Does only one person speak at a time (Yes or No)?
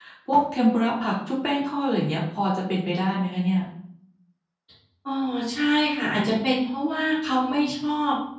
Yes